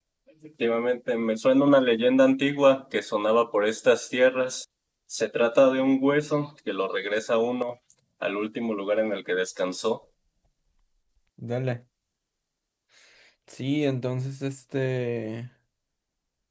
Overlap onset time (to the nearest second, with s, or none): none